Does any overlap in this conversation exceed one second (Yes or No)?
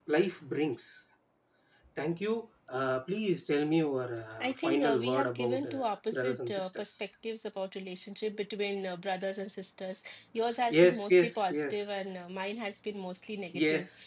Yes